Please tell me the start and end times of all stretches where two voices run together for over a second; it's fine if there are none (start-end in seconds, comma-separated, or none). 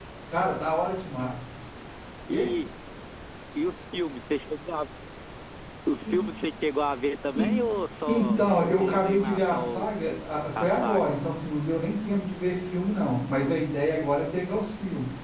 8.1-9.9